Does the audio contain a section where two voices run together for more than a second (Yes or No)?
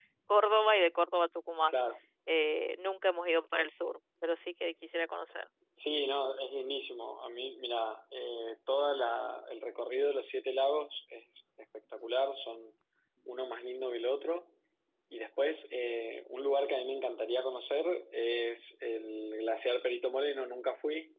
No